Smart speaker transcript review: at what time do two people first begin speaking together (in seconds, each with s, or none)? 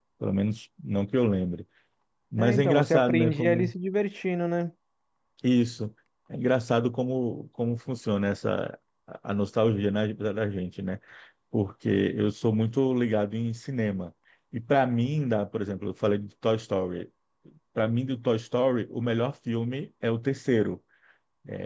2.4 s